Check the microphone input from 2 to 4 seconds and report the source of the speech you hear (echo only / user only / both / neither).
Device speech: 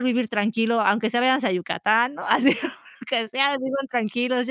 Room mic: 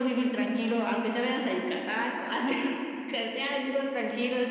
echo only